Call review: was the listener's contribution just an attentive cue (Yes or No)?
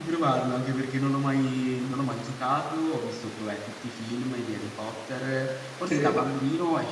Yes